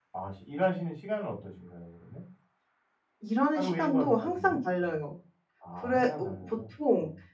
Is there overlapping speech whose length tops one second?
Yes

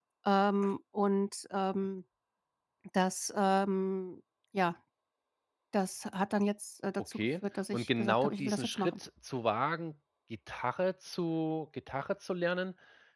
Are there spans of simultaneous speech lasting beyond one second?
Yes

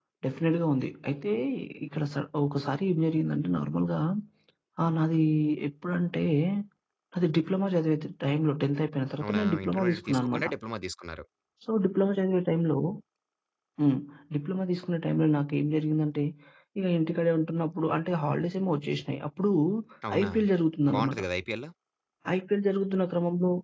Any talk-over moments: Yes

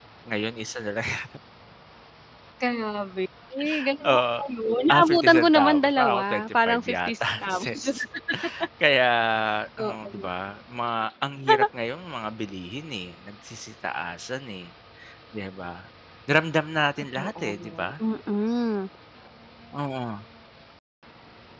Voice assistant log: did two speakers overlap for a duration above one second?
Yes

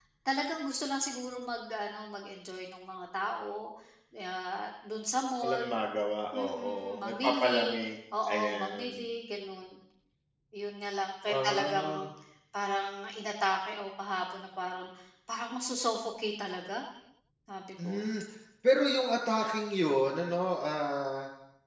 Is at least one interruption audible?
Yes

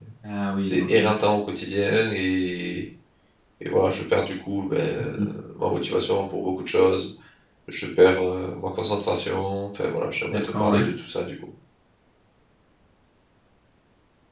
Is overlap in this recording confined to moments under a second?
Yes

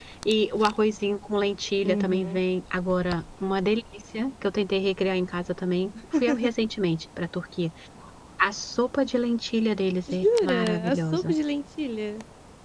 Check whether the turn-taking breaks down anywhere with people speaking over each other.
Yes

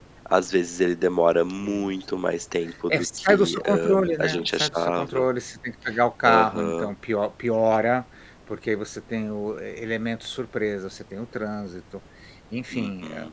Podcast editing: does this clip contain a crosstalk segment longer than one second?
Yes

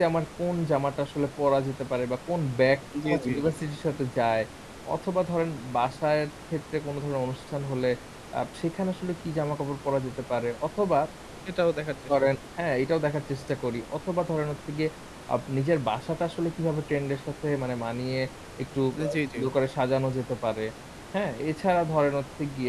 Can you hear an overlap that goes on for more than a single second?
No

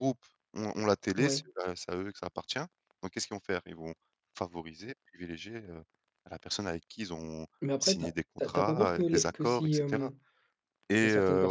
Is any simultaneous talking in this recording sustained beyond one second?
Yes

